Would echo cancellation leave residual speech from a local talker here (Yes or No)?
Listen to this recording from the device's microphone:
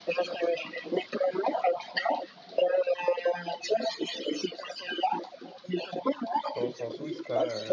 Yes